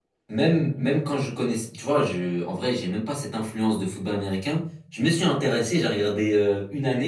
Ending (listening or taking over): listening